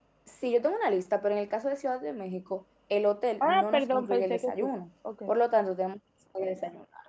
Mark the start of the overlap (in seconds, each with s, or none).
3.4 s